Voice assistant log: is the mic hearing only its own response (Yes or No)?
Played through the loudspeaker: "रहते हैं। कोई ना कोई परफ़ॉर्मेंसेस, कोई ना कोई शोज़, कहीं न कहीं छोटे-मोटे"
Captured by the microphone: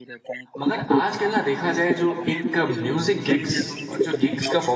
No